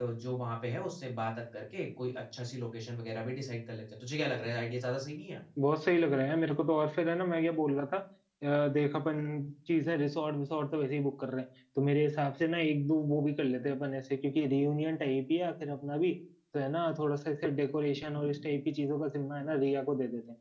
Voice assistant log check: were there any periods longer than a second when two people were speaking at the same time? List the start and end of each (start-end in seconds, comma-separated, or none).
none